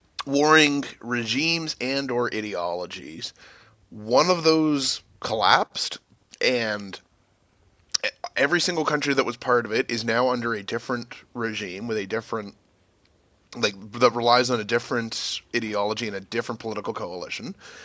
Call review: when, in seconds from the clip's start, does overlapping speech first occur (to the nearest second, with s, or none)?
none